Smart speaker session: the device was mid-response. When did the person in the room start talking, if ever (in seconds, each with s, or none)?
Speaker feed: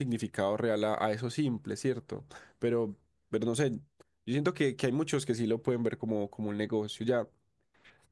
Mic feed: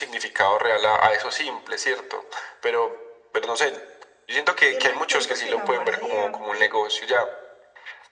4.7 s